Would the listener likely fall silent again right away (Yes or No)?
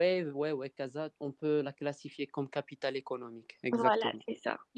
No